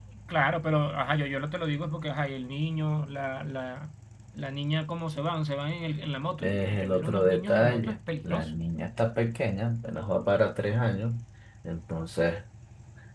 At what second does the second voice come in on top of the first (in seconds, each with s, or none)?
6.4 s